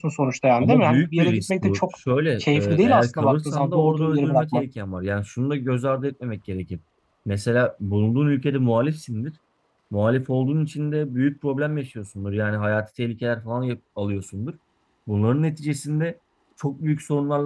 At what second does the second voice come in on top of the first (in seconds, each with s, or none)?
0.6 s